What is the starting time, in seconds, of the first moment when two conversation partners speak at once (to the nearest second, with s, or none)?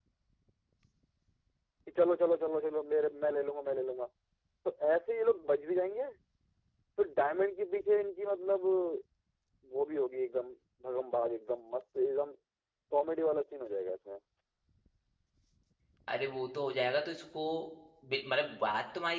none